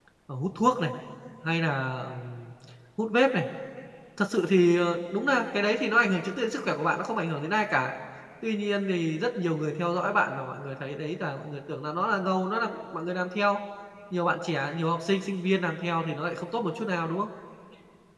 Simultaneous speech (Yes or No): No